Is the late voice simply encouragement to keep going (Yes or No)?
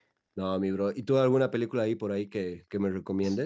No